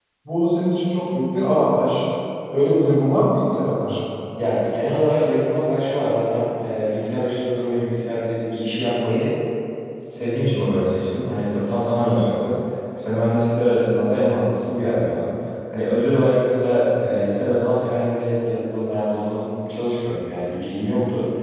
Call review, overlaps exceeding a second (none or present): none